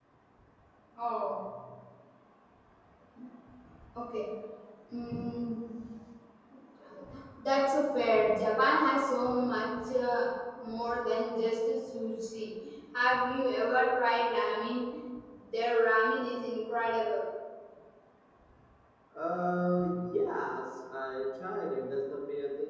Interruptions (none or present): none